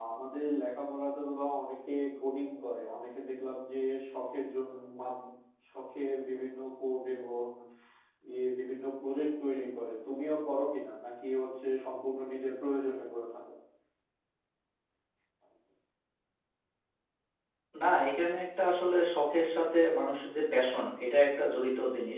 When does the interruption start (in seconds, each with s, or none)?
none